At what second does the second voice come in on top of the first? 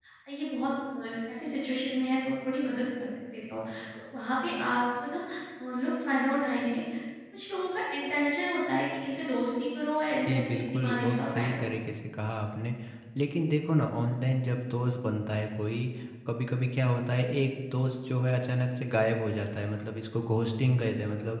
10.3 s

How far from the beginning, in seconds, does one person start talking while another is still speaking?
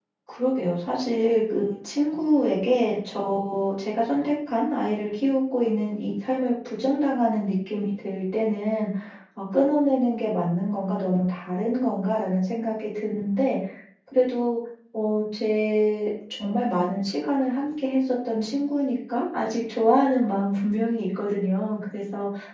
none

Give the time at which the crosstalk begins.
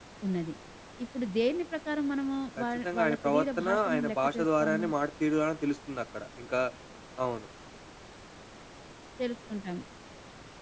2.6 s

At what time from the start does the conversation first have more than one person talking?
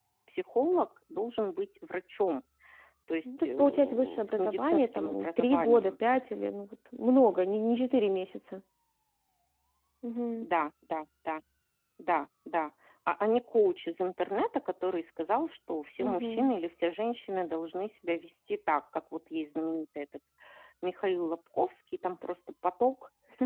3.2 s

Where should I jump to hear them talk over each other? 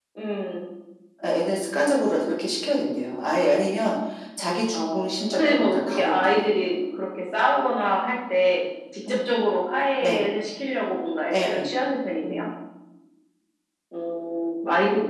4.7 s

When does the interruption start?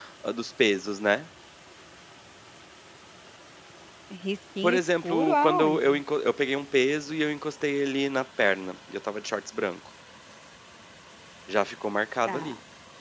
4.6 s

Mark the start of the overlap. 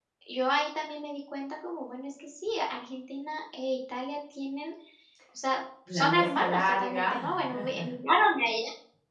5.9 s

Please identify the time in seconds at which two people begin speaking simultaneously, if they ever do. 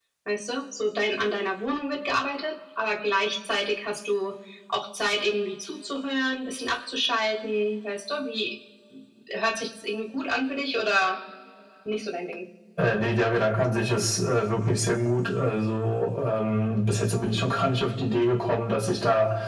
none

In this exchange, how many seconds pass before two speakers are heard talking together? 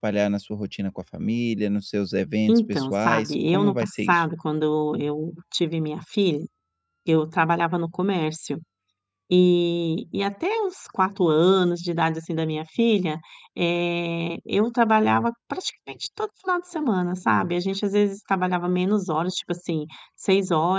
2.5 s

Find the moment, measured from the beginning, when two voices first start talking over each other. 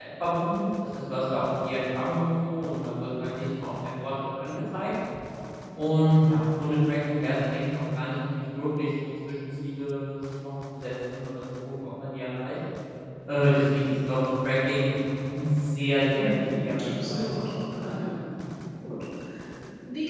16.1 s

